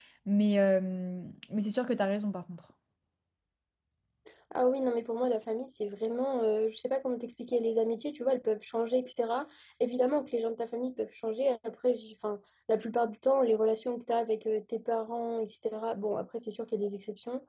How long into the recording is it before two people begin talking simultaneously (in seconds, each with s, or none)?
none